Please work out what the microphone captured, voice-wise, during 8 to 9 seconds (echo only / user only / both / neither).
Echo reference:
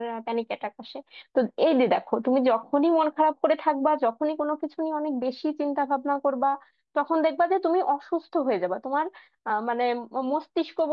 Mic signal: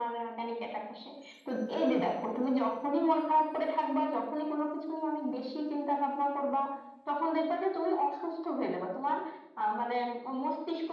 echo only